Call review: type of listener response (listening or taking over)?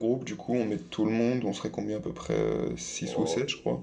taking over